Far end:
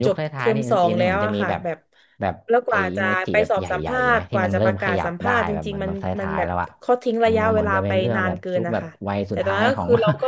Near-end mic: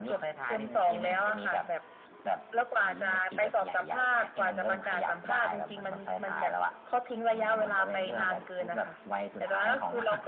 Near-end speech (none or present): none